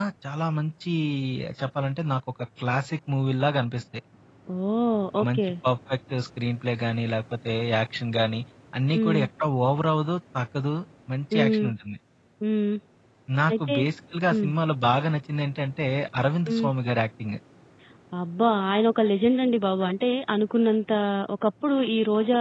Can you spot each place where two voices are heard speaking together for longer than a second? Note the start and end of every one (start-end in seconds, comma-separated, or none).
none